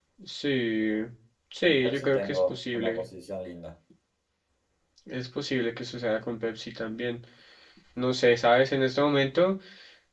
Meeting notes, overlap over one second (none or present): present